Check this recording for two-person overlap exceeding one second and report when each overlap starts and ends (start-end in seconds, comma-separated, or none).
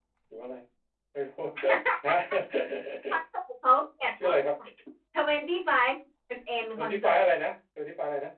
none